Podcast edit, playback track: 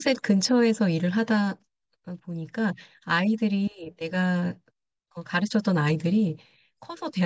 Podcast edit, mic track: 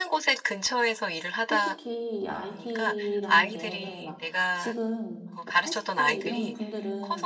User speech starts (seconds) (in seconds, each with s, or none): 1.5 s